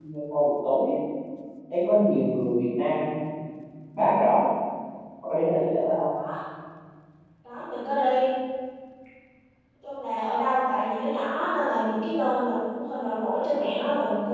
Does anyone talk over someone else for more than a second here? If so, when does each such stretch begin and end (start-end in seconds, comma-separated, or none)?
none